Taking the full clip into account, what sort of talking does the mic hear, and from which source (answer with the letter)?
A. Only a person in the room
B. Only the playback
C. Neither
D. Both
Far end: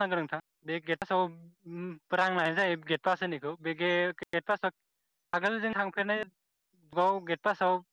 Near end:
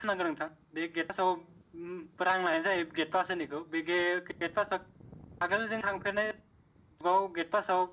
B